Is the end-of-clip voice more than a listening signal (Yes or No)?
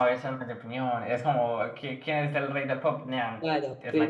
Yes